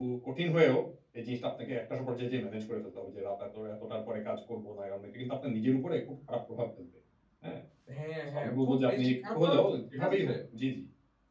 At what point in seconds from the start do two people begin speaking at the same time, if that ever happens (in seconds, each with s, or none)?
8.3 s